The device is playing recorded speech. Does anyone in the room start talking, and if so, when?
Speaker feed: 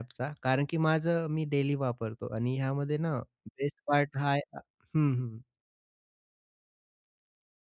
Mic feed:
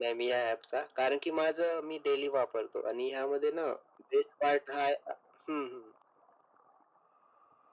none

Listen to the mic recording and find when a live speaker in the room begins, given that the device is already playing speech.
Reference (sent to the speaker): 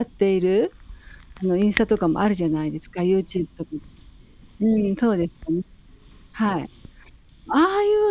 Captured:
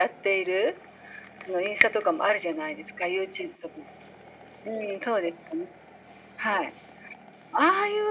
none

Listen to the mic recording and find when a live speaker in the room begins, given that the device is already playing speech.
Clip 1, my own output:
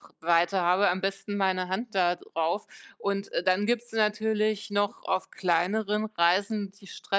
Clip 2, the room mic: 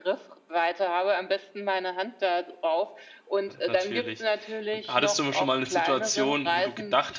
3.5 s

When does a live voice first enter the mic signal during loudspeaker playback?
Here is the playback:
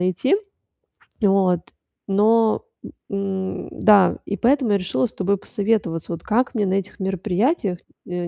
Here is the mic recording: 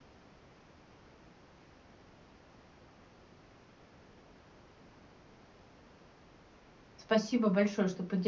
7.0 s

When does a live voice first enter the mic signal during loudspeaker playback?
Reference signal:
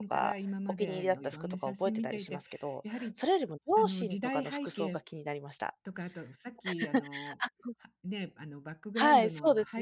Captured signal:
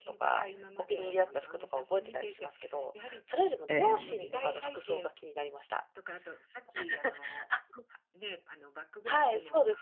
3.7 s

